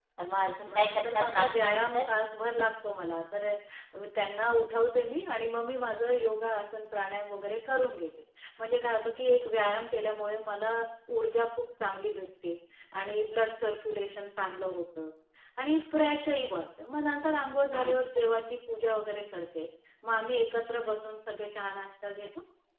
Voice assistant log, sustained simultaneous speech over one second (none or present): present